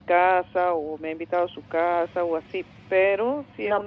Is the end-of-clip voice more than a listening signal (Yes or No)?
Yes